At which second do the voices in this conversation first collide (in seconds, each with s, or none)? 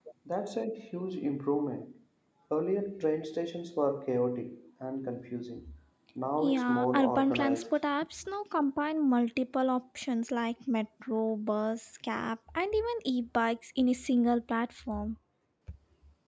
6.4 s